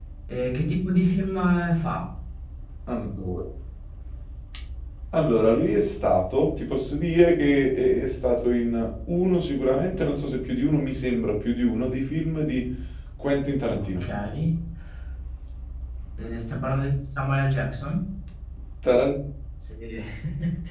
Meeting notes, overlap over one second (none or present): none